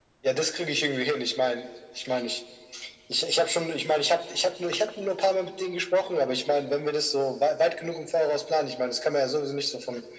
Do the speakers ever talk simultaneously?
No

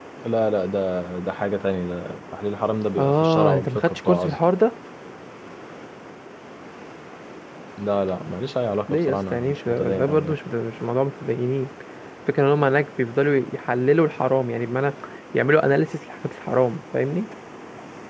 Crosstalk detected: Yes, from 3.0 s

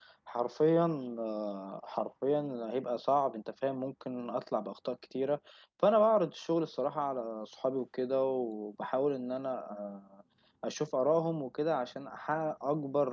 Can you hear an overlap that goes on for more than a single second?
No

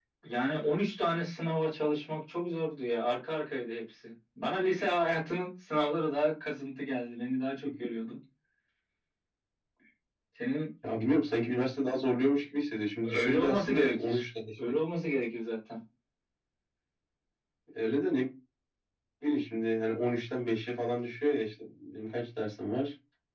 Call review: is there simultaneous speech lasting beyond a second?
Yes, from 13.0 s

